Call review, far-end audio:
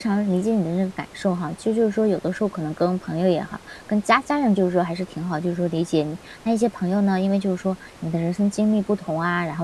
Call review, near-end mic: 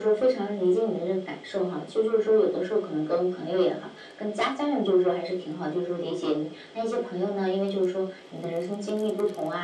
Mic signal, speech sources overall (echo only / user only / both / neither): echo only